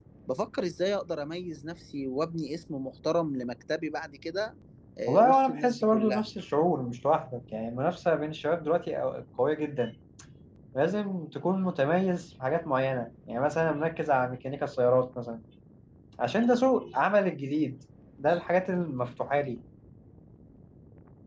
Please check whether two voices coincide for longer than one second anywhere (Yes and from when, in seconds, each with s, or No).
Yes, from 5.1 s